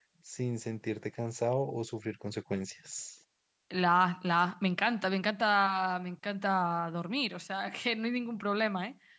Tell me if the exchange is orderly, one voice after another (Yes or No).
Yes